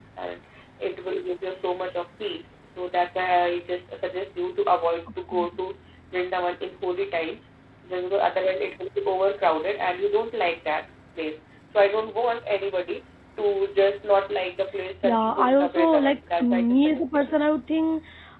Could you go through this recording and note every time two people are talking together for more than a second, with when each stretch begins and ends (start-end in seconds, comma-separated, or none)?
15.0-17.4